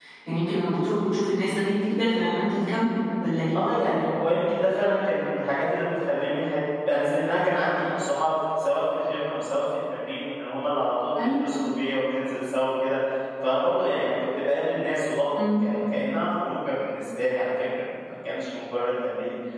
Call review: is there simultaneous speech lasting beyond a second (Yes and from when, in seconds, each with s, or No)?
No